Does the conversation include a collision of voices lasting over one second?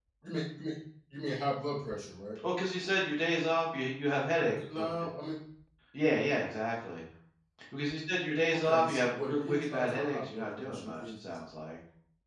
Yes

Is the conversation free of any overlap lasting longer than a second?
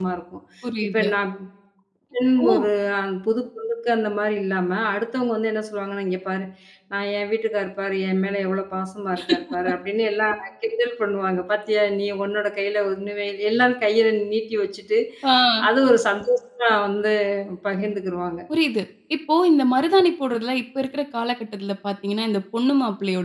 Yes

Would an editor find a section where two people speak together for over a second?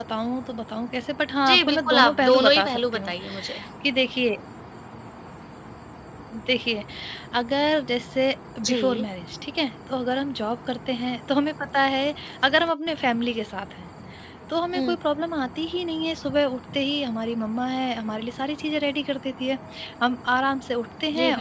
Yes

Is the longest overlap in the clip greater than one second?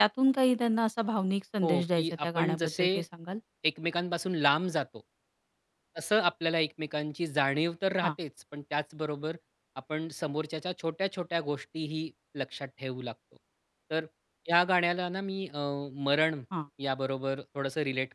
Yes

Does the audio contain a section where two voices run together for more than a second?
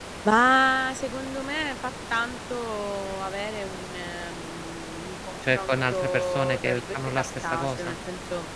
Yes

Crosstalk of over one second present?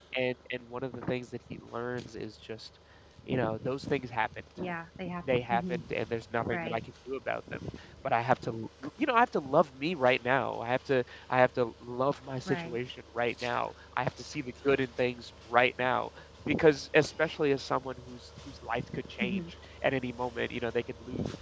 No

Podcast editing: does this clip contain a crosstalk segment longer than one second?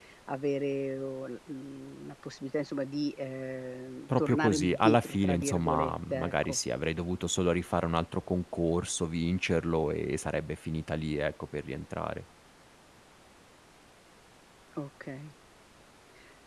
Yes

